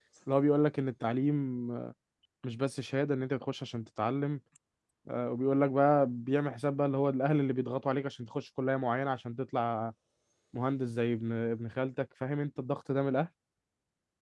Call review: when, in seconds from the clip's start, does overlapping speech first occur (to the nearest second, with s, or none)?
none